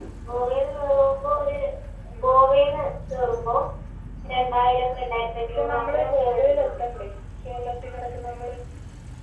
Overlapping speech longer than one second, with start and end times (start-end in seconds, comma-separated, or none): 5.5-6.8